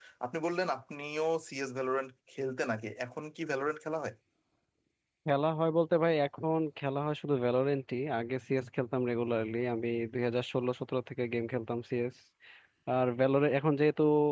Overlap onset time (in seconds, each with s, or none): none